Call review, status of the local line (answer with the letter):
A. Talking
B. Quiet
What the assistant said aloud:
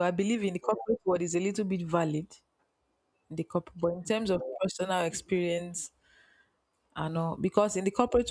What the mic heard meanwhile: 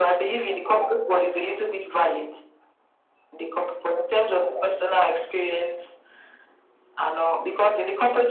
B